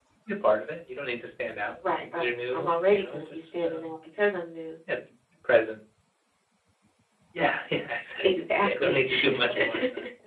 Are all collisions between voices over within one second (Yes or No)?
No